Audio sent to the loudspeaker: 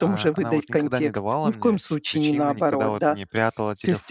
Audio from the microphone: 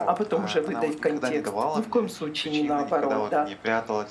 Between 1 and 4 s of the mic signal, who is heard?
echo only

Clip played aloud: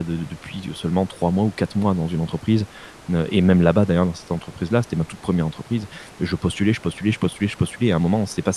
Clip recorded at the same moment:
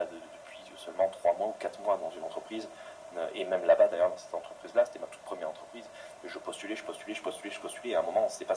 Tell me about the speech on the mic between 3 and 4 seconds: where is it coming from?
echo only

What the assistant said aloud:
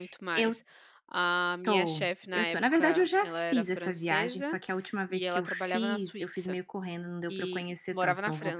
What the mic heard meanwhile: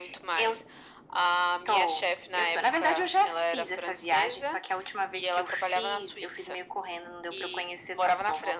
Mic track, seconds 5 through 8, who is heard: echo only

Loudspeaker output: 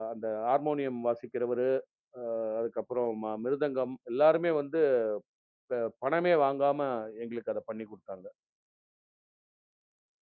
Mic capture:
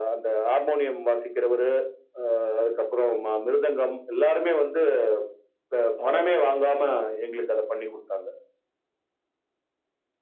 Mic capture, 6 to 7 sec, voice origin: both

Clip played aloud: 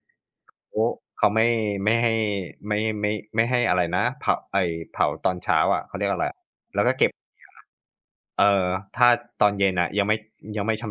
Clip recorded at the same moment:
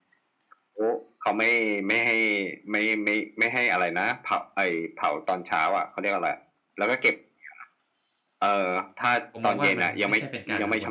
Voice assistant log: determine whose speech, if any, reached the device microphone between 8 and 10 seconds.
both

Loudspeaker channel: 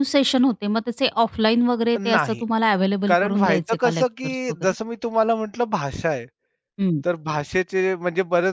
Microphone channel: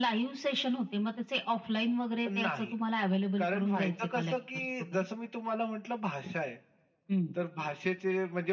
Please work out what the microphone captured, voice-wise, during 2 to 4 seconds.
echo only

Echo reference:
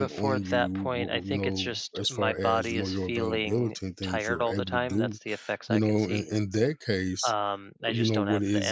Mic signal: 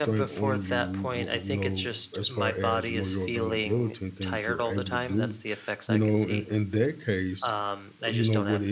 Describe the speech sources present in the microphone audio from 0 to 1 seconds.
echo only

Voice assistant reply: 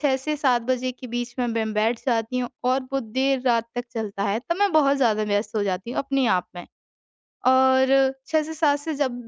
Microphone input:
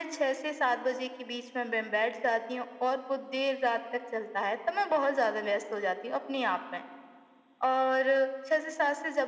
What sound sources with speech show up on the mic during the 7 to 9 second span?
echo only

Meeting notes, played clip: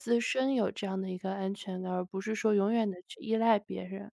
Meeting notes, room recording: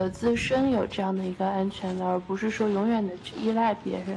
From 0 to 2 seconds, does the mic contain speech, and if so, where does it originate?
echo only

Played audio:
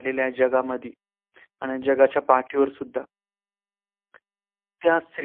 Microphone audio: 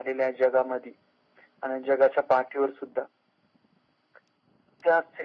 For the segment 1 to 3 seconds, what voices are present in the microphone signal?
echo only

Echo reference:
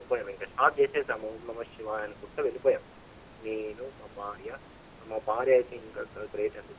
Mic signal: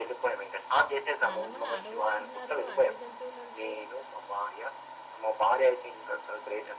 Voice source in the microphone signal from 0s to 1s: echo only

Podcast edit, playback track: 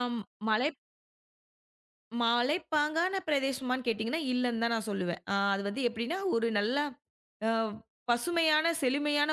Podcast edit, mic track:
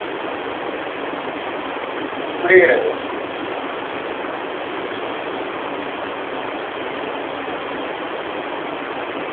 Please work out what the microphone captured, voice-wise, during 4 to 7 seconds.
neither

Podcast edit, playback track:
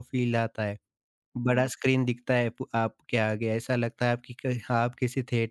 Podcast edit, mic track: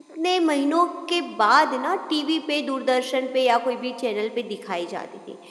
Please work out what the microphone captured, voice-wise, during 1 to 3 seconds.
user only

